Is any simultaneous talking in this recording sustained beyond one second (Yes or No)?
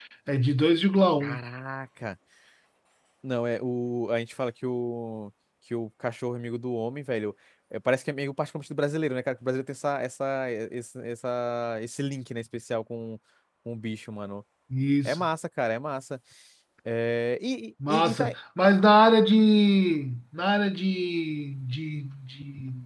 No